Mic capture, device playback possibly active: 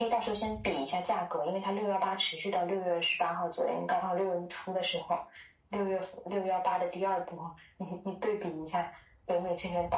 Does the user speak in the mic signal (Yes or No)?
No